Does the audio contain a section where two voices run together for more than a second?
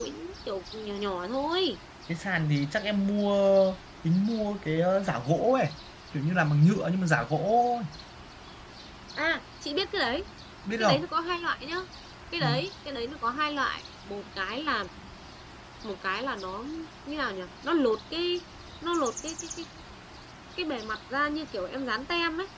No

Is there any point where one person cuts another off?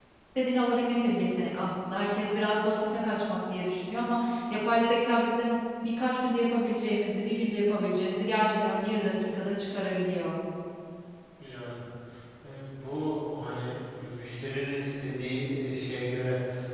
No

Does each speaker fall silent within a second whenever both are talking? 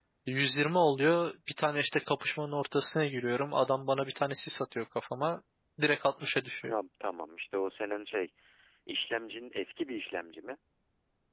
Yes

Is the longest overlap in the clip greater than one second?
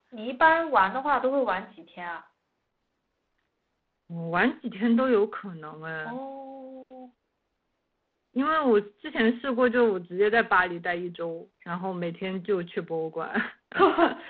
No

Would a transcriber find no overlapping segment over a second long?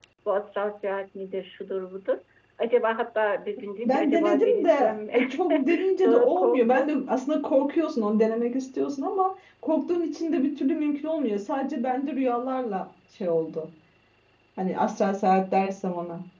No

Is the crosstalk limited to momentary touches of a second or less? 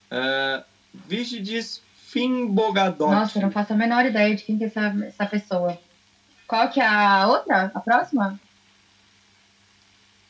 Yes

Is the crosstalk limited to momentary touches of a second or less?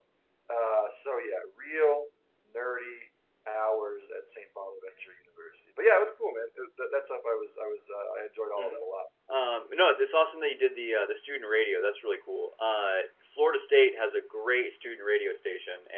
Yes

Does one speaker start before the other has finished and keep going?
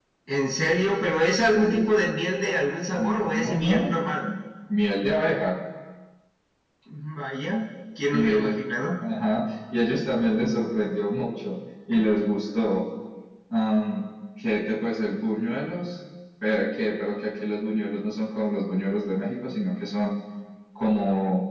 Yes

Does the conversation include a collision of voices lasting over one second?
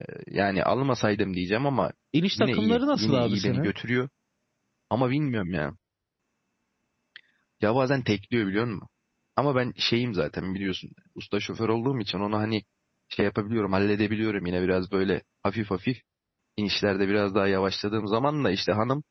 Yes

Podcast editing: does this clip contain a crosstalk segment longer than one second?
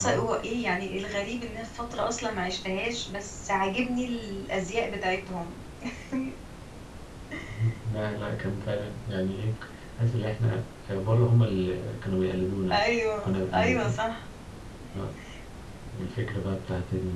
Yes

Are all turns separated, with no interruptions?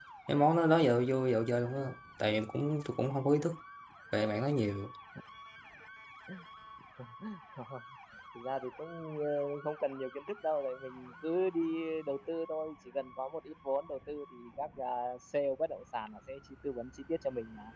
Yes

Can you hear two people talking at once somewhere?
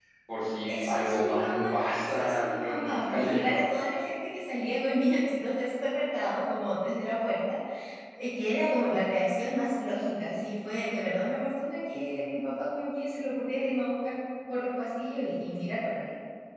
Yes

